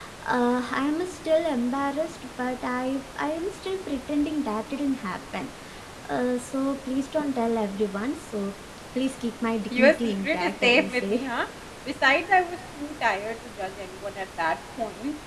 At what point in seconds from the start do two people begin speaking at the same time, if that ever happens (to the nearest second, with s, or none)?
10 s